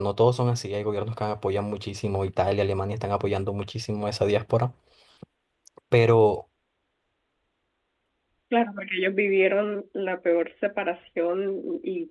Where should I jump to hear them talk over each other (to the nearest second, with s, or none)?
none